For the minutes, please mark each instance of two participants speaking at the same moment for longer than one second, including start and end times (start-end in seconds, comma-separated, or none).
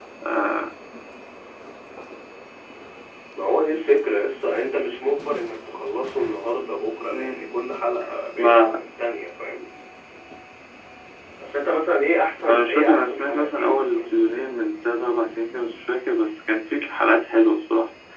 12.5-14.5